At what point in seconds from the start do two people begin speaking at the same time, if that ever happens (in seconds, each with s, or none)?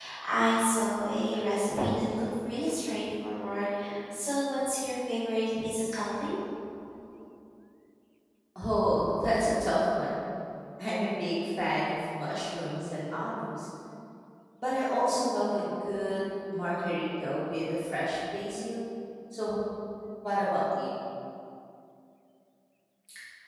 none